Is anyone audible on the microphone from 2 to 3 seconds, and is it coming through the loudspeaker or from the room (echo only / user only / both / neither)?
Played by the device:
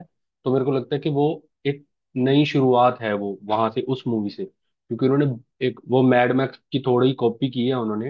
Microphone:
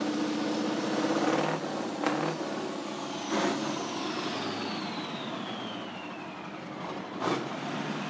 neither